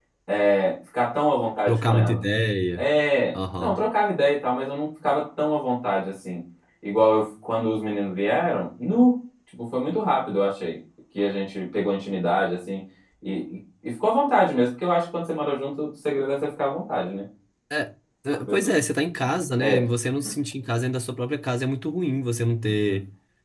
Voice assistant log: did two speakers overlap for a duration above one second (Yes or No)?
No